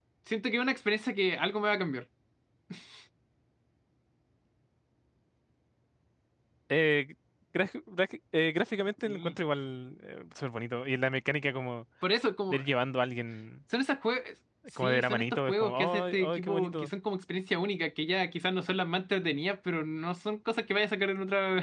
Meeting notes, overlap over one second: present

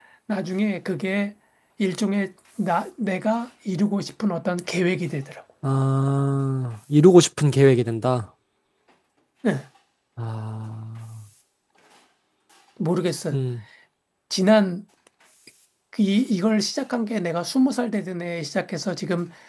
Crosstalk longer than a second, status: none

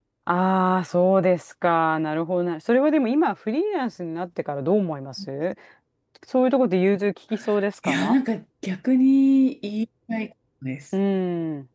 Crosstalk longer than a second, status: none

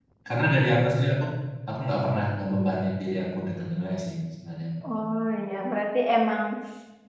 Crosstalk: none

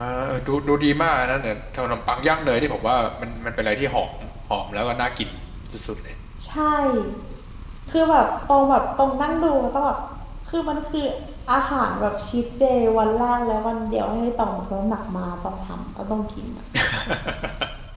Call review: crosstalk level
none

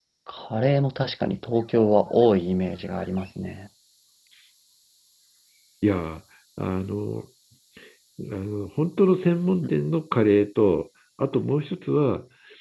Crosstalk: none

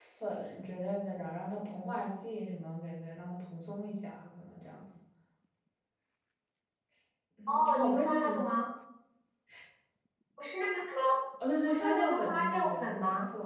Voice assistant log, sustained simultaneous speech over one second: present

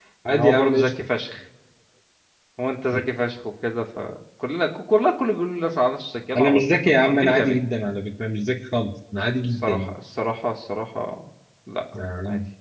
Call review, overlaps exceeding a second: present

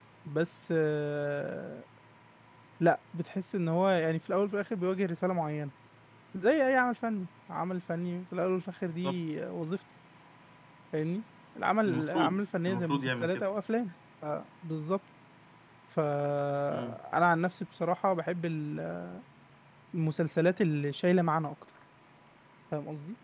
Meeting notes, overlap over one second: present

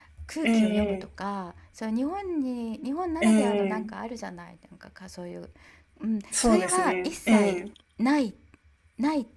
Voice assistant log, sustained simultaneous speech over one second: present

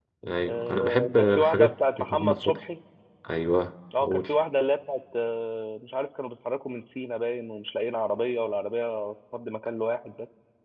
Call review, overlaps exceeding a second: present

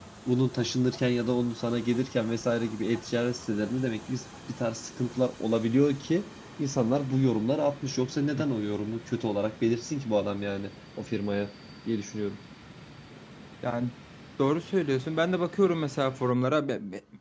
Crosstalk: none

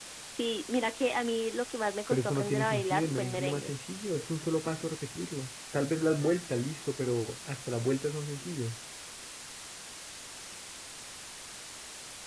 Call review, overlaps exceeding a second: present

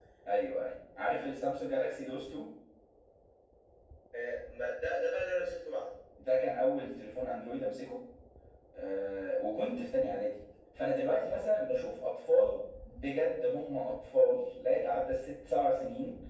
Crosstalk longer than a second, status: none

